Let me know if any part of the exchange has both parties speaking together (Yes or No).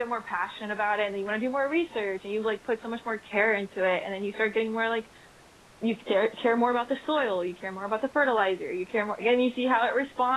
No